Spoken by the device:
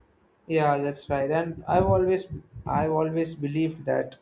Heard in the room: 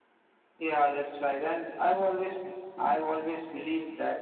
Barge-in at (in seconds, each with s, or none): none